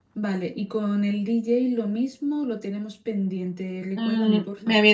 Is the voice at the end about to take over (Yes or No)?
Yes